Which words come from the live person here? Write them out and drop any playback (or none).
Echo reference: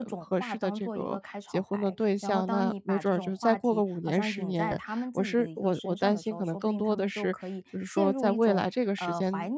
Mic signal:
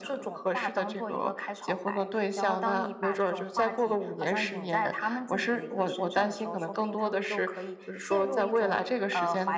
none